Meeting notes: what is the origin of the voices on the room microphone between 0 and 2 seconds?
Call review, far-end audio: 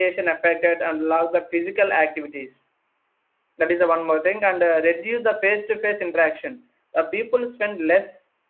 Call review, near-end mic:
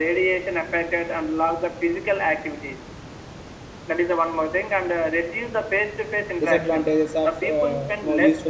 echo only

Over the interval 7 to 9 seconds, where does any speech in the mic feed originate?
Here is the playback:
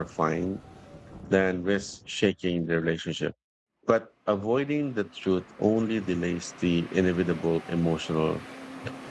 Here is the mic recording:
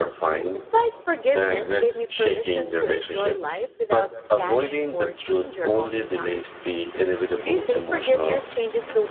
both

